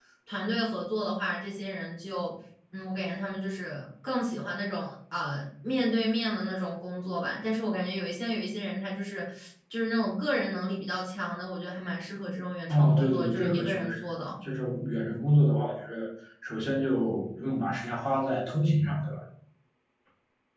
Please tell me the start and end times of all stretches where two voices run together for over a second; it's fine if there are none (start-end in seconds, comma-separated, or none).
12.7-14.3